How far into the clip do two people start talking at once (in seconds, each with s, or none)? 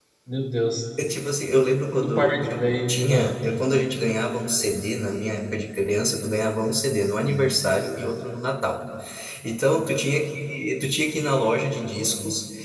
1.9 s